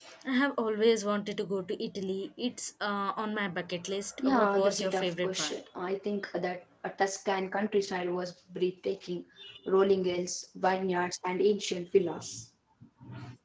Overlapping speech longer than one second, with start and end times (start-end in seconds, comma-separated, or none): 4.2-5.5